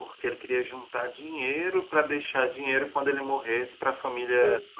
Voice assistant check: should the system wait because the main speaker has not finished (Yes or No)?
No